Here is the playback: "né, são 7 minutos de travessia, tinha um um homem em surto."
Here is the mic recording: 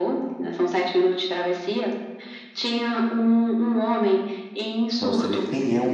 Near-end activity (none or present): present